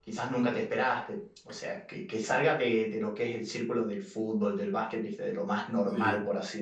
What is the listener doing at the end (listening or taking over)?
listening